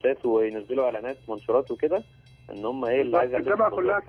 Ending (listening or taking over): taking over